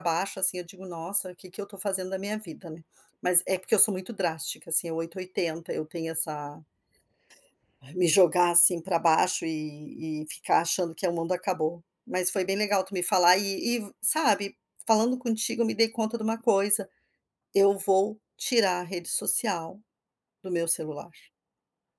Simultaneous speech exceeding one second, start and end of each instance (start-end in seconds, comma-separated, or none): none